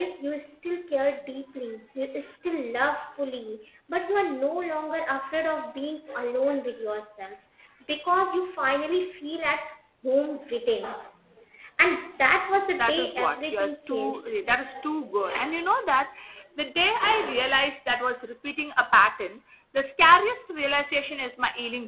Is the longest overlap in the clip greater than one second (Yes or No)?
Yes